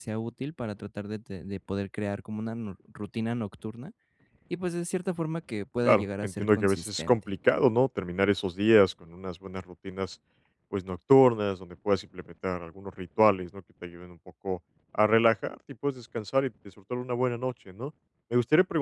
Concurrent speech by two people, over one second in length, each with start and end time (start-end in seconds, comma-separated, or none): 5.8-7.2